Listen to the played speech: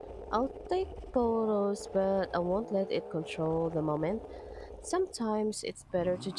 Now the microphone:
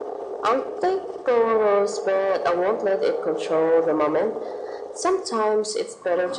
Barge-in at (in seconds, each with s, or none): none